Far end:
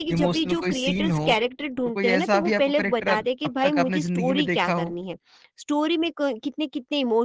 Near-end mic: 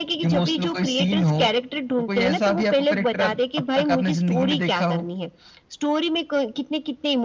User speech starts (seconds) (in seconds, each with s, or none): none